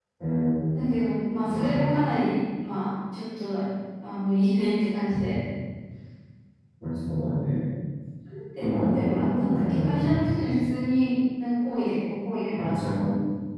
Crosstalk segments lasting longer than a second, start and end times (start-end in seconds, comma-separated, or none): 8.6-10.0